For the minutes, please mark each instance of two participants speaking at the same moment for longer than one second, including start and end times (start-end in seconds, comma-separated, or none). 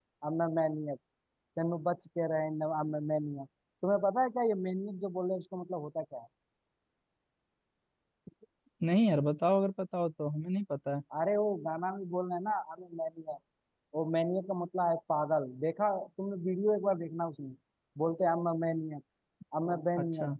none